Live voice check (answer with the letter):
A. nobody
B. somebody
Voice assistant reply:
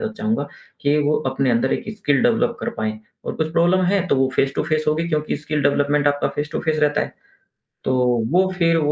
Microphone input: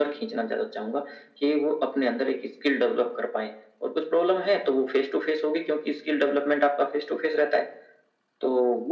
A